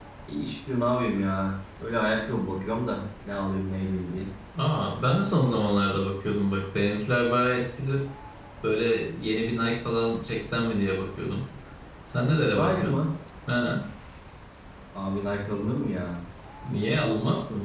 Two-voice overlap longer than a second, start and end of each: none

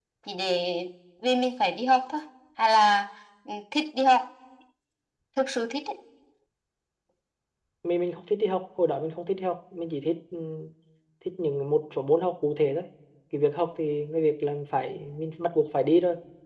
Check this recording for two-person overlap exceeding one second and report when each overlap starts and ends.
none

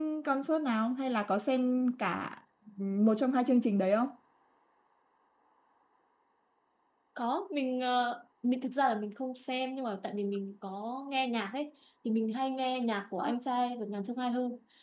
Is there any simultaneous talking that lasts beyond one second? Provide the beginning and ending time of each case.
none

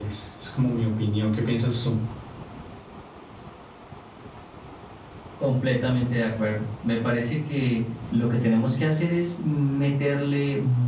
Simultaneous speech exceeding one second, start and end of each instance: none

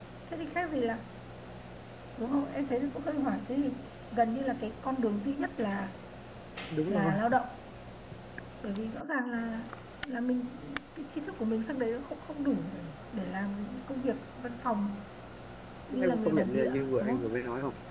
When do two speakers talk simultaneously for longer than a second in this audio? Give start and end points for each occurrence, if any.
16.0-17.3

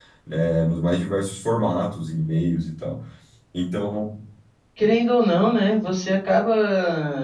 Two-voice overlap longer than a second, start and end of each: none

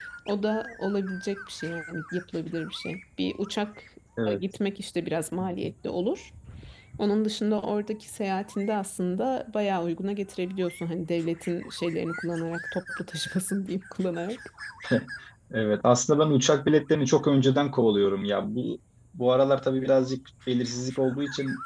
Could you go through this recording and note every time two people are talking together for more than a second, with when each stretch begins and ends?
none

